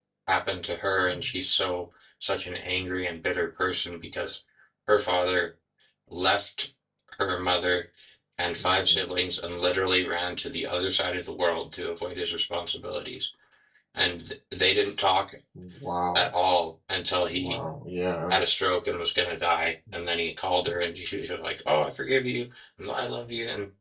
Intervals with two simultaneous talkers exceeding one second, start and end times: none

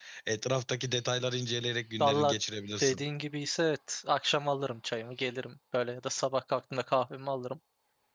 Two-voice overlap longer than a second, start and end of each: none

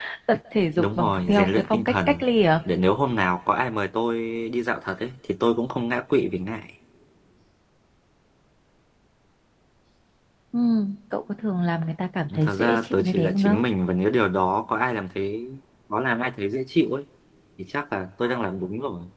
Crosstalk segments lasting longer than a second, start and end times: 0.8-2.2, 12.4-13.6

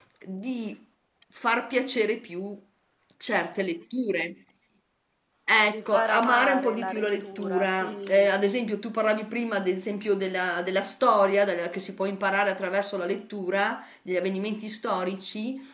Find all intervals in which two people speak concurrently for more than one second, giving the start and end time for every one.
5.7-8.3

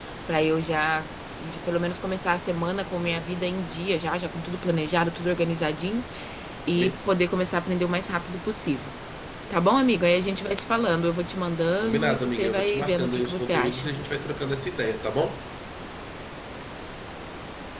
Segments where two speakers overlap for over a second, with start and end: 11.8-13.9

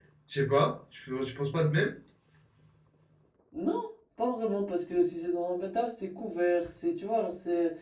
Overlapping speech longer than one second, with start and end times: none

